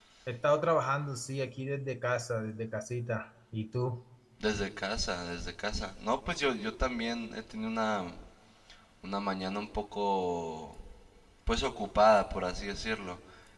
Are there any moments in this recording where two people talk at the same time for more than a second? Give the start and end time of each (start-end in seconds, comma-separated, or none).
none